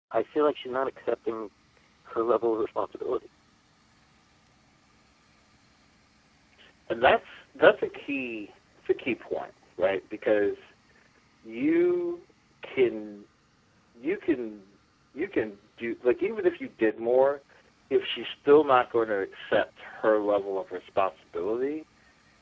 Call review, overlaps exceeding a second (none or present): none